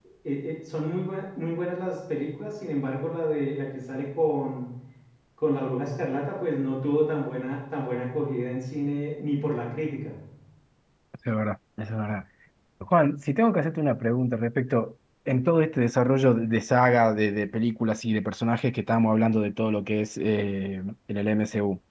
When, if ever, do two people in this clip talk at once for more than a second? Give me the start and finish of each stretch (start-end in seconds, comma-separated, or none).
none